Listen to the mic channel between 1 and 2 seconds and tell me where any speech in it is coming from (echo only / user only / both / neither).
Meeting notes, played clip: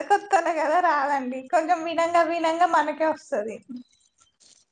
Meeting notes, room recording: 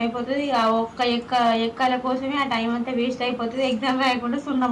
user only